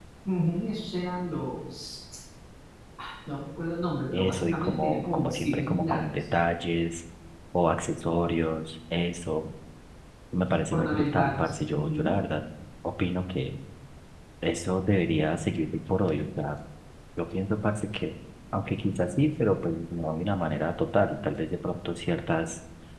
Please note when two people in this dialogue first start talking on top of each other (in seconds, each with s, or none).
4.1 s